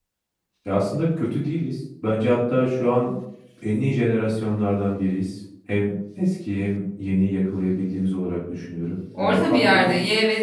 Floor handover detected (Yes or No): Yes